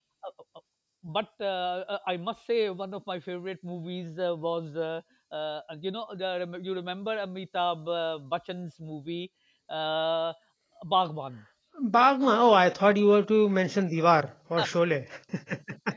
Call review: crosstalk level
none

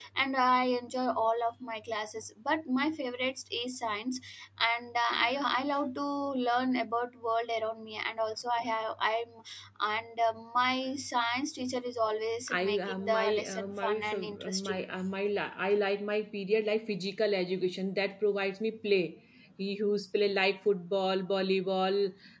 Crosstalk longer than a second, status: present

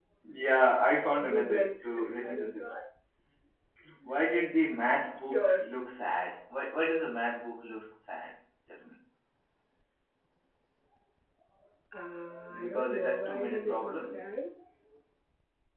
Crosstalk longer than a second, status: present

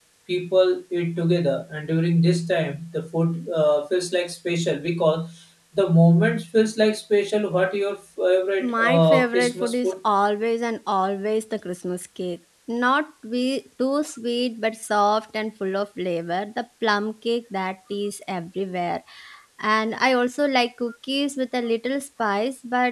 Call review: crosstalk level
present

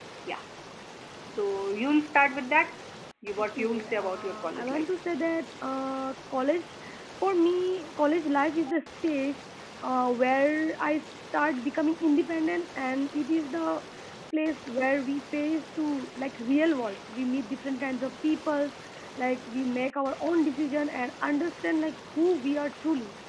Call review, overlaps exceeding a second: present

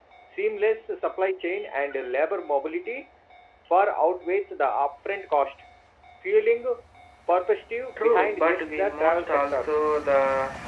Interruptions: present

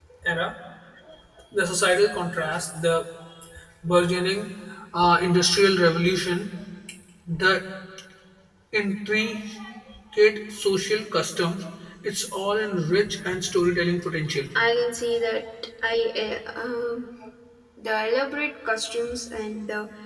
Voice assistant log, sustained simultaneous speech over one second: none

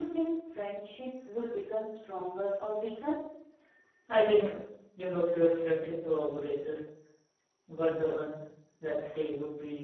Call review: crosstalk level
none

